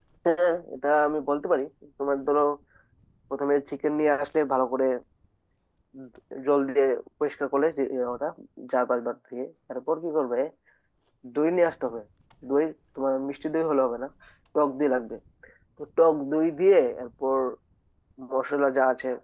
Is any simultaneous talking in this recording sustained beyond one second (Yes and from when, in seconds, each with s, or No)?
No